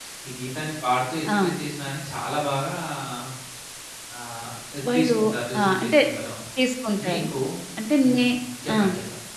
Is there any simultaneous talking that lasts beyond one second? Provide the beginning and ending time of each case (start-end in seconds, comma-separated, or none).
none